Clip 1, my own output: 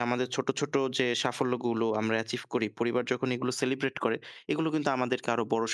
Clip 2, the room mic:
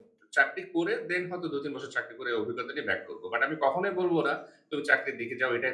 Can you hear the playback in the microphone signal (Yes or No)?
No